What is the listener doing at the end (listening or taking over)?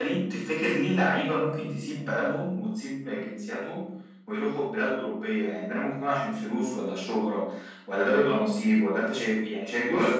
listening